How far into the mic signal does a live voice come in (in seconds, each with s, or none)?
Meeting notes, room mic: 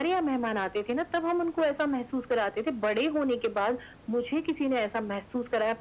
none